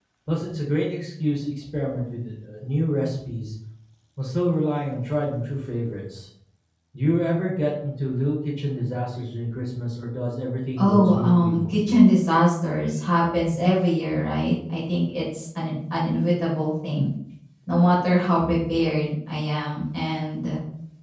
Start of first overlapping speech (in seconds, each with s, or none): 10.8 s